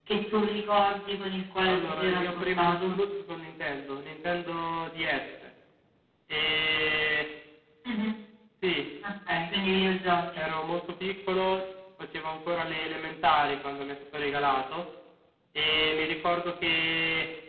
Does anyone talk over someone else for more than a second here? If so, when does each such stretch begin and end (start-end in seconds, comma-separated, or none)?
1.7-3.0